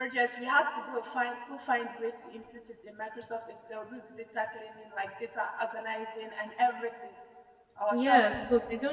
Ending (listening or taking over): taking over